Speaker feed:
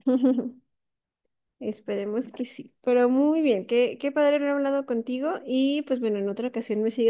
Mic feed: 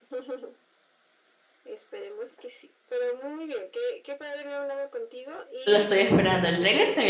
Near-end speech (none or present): present